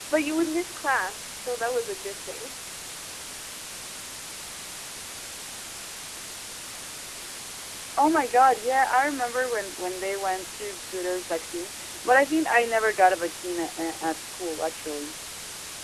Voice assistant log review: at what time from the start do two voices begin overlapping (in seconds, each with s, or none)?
none